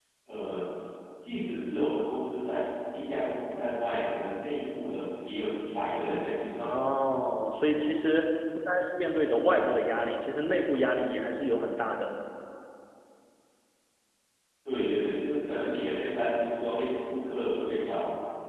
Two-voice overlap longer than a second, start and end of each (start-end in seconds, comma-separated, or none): none